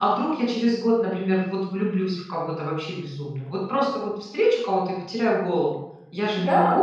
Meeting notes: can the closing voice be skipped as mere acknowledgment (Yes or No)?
No